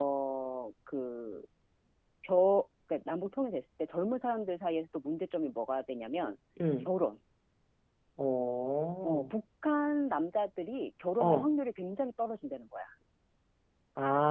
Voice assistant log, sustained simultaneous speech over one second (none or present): none